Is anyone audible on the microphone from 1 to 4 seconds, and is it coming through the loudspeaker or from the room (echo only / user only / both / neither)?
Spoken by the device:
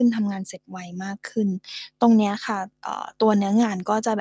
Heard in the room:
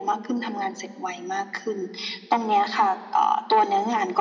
echo only